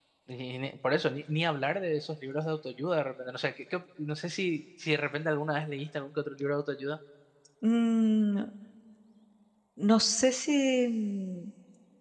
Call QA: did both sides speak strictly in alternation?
Yes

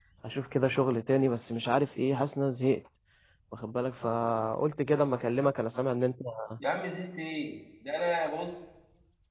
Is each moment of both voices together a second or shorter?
Yes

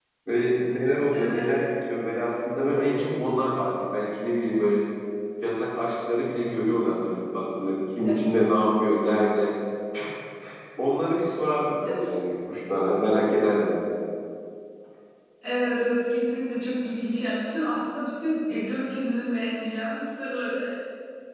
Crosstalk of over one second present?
No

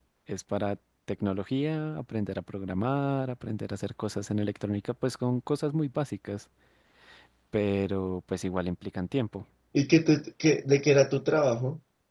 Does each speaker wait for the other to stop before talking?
Yes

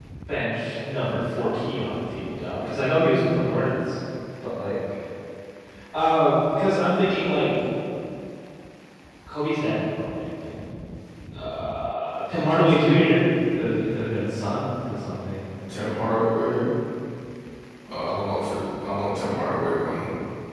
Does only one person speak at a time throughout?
Yes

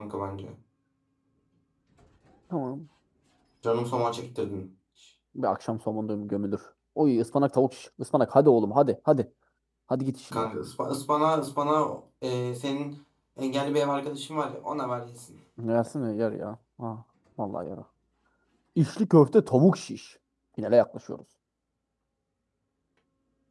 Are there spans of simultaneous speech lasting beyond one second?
No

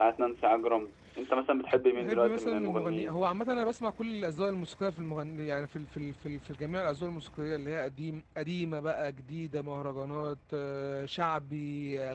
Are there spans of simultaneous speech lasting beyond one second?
Yes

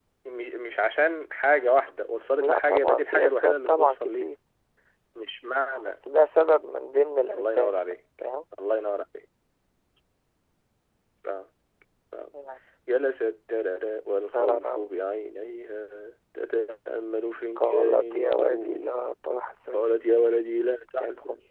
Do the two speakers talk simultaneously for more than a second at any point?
Yes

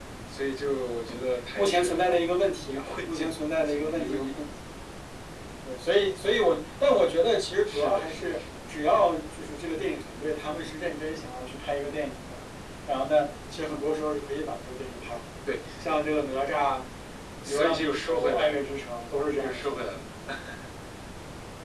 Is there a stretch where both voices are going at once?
Yes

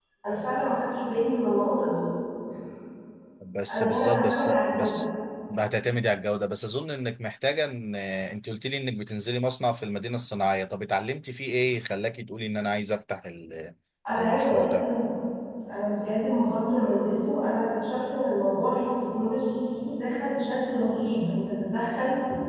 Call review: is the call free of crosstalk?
No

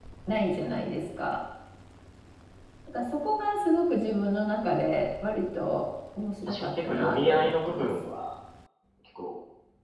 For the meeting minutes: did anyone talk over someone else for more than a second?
Yes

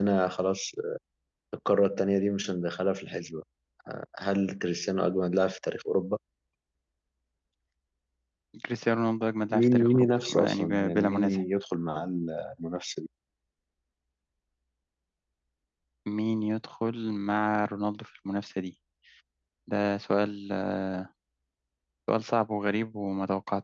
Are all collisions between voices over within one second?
No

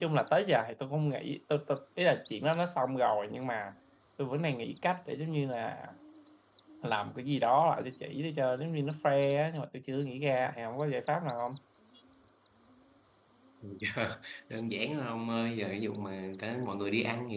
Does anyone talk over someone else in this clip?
No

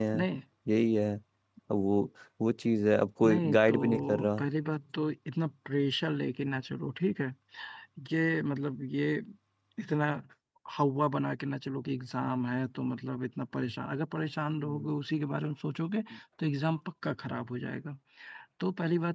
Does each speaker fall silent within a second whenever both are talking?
No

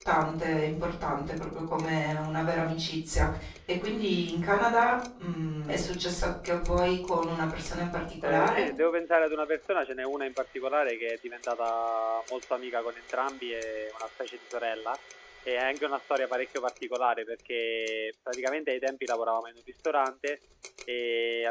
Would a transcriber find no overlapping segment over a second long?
Yes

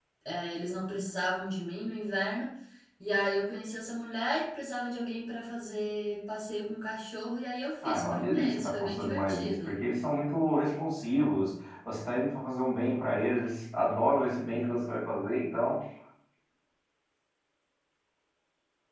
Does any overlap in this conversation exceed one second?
Yes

